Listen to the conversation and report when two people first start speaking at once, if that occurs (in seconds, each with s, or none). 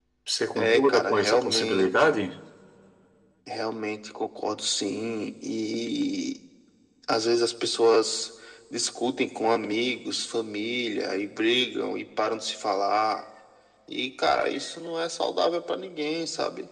0.6 s